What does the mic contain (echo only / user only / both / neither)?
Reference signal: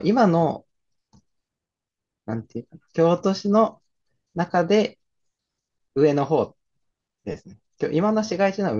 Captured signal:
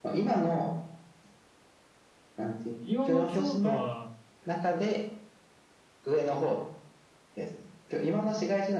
both